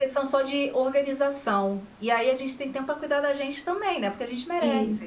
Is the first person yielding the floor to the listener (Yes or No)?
Yes